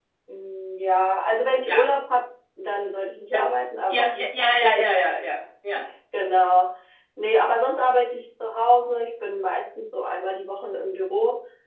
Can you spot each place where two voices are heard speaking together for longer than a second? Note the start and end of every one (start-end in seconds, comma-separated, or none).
none